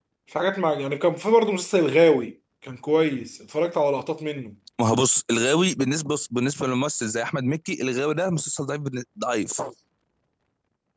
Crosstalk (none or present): none